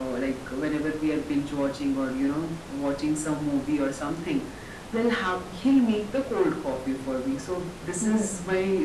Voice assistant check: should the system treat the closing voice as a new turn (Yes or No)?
No